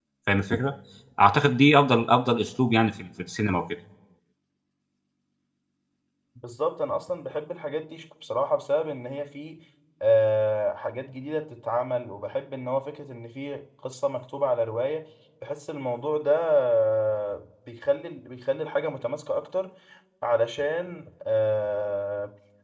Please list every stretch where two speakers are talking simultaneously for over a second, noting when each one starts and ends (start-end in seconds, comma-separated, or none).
none